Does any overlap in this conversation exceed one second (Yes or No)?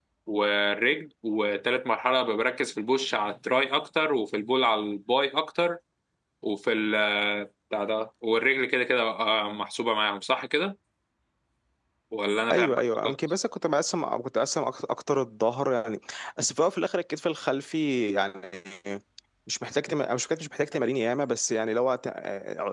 No